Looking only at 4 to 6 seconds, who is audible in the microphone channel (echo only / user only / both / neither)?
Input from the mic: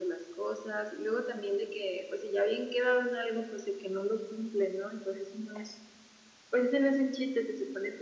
echo only